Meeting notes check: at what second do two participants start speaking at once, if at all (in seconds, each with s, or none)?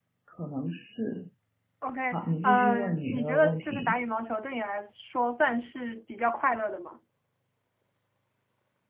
2.4 s